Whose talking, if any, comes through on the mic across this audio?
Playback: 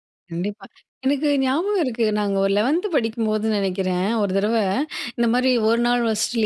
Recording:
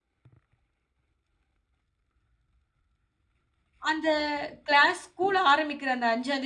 user only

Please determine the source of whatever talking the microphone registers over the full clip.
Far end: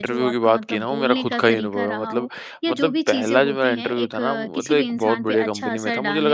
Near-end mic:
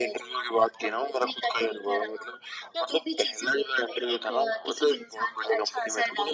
echo only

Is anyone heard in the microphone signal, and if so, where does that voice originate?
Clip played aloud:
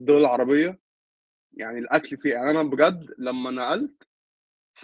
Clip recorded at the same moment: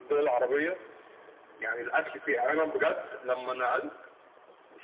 echo only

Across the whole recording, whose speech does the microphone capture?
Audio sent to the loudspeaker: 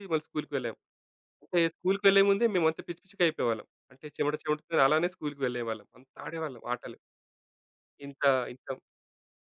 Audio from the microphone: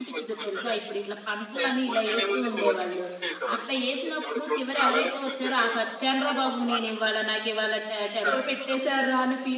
both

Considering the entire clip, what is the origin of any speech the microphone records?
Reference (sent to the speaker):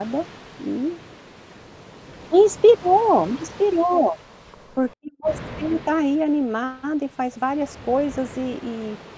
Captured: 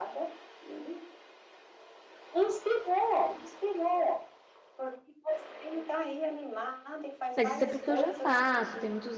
both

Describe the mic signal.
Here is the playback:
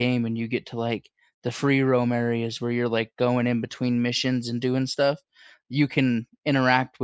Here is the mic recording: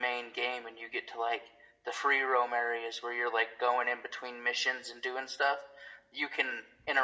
echo only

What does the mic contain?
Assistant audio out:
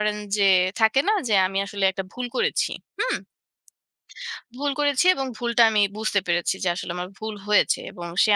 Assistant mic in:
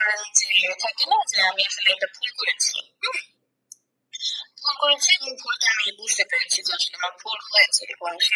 echo only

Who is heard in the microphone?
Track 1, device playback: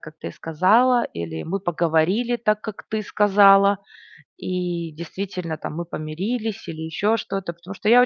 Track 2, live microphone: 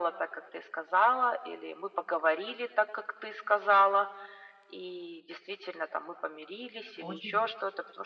both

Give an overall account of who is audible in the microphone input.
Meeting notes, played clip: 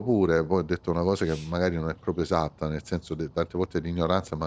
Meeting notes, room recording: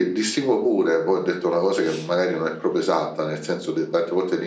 echo only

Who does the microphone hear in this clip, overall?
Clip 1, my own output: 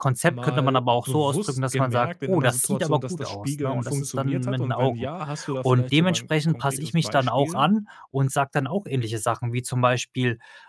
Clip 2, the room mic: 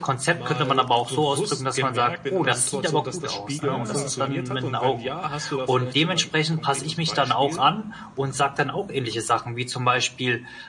both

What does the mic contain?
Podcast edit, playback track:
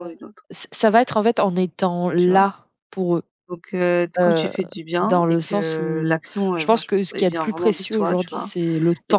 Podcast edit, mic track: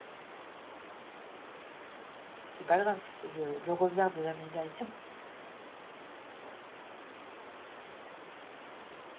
user only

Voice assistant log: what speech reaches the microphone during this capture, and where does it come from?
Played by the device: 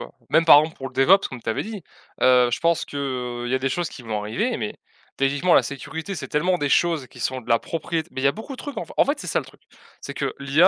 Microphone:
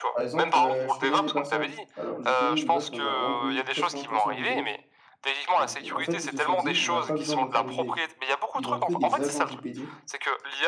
both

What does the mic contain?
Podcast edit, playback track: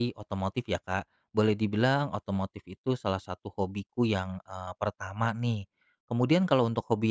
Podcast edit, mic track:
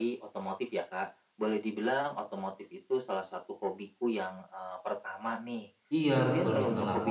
both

